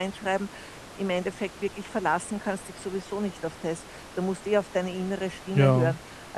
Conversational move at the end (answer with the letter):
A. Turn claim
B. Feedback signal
B